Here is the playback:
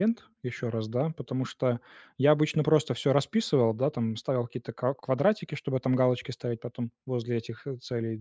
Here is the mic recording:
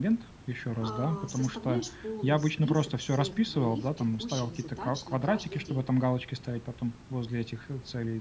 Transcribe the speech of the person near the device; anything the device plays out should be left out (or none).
а, составляешь полный список всех твоих текущих задач на каждый день?